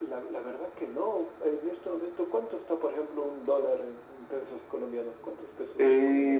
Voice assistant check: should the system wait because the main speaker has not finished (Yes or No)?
No